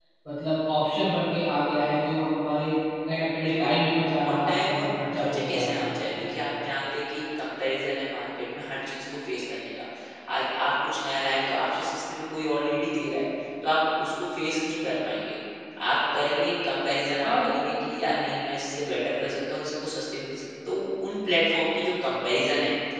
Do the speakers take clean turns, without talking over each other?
No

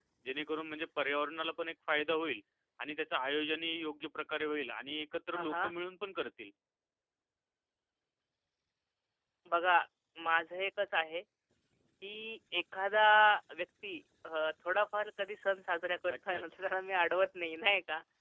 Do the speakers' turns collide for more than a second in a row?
No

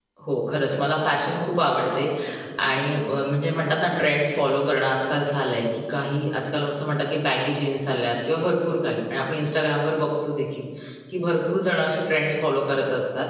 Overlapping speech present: No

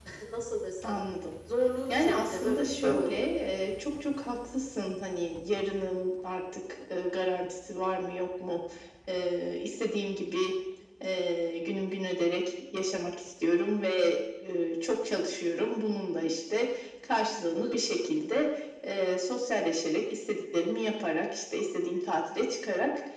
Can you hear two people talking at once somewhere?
Yes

